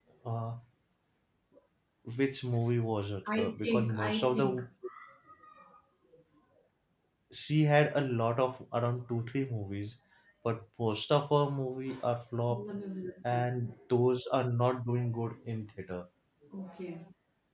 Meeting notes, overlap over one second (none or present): present